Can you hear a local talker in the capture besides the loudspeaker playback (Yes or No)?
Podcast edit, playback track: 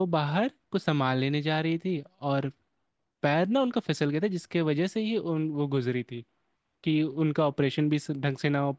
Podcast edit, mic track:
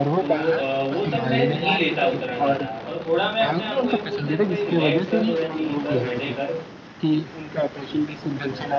Yes